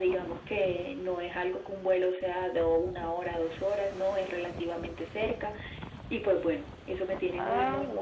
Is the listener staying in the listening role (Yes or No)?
No